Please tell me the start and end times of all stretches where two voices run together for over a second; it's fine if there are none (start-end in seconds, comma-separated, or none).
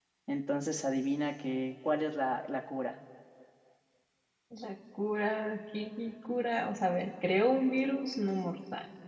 none